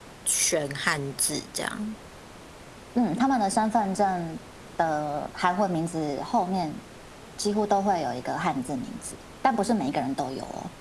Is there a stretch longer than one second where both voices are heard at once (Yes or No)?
No